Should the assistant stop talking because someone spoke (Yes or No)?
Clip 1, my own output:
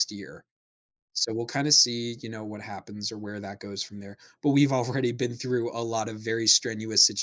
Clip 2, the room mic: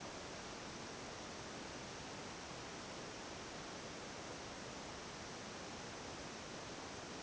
No